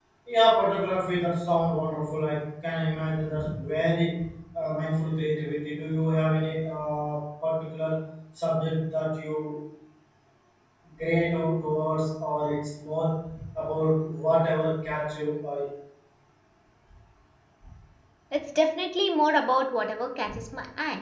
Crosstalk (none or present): none